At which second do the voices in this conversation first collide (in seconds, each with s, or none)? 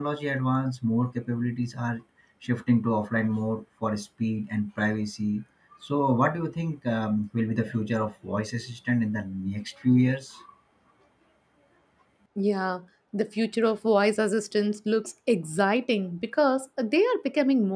none